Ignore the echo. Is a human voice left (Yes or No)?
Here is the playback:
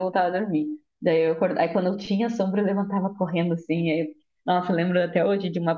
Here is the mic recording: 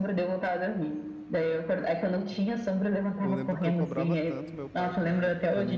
Yes